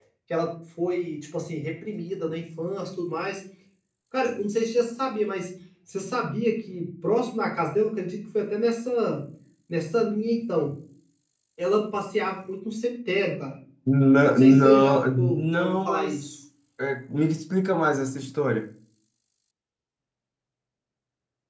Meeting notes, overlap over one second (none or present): present